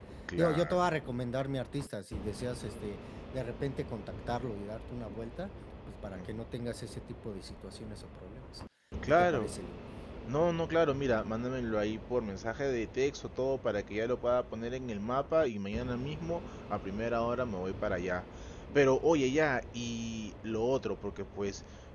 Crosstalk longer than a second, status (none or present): none